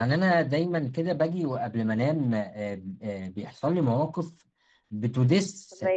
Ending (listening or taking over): listening